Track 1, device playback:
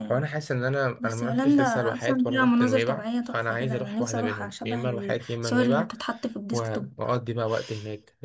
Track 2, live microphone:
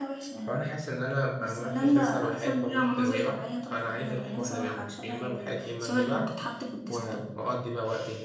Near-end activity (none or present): none